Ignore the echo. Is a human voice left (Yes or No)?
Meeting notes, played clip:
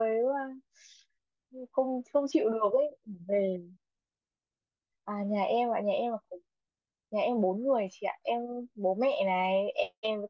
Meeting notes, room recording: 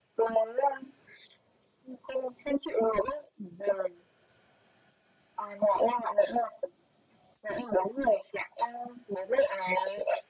No